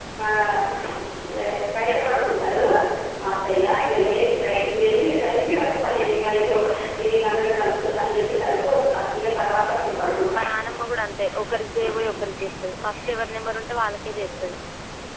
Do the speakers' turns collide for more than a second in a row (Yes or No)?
No